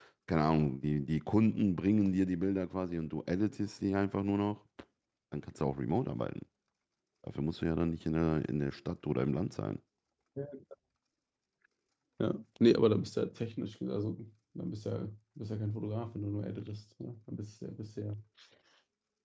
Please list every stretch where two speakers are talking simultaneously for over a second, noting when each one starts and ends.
none

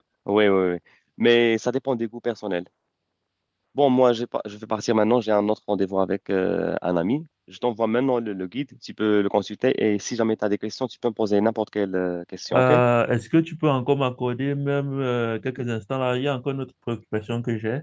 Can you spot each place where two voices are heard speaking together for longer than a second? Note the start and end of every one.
none

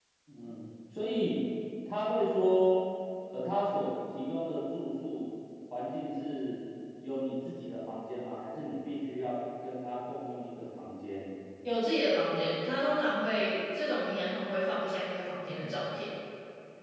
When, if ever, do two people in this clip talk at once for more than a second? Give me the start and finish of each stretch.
none

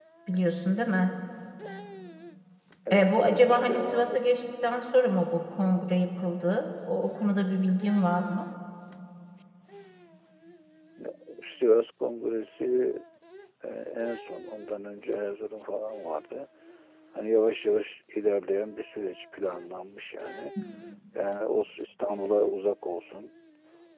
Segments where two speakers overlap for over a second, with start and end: 2.9-4.2

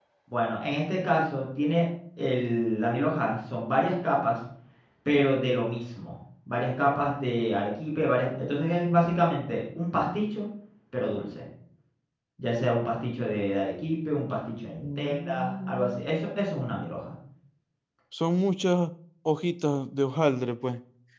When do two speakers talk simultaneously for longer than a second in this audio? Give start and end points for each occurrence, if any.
14.8-16.0

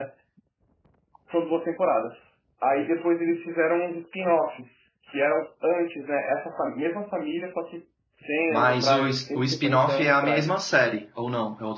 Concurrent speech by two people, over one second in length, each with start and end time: 8.5-10.6

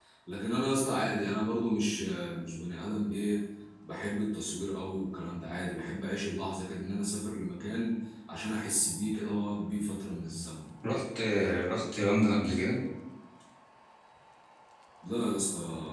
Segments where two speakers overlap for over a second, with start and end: none

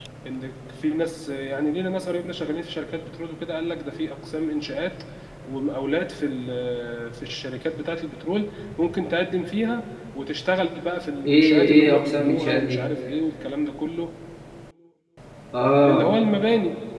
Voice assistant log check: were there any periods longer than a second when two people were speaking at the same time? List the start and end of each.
11.3-12.9

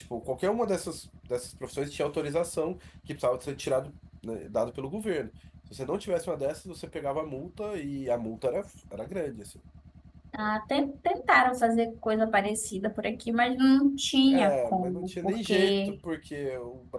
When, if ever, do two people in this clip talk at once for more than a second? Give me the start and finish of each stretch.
14.3-16.0

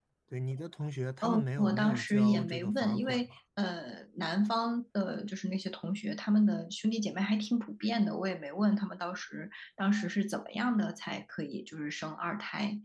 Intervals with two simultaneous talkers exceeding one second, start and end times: 1.2-3.3

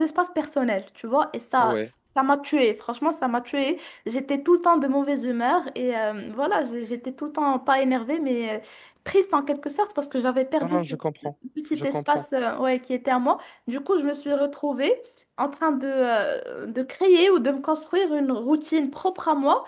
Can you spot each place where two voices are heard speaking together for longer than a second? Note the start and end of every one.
none

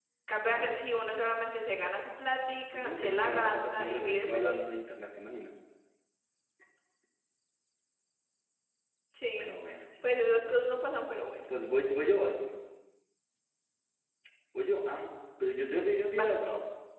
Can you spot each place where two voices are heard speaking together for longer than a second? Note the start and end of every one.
2.7-4.6

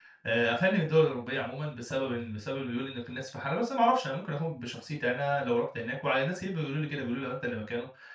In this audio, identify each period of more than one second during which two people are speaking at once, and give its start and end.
none

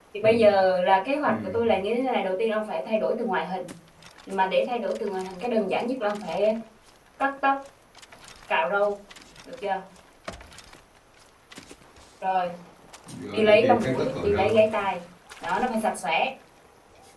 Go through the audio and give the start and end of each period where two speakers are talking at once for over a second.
13.3-14.6

